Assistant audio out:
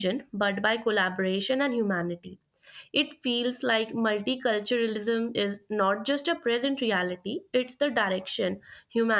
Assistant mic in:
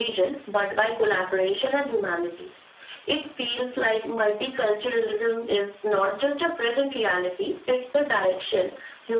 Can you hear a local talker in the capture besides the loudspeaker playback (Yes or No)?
No